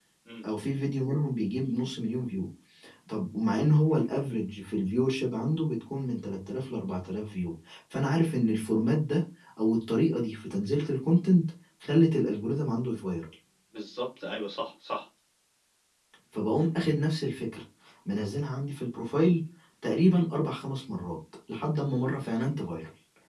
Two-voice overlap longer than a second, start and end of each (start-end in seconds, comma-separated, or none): none